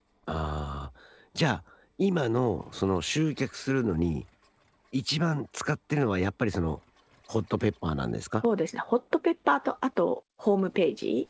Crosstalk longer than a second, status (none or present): none